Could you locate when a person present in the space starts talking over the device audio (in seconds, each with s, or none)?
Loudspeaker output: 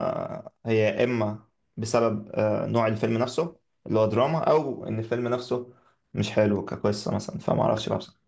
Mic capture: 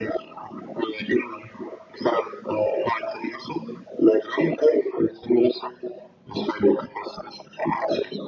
none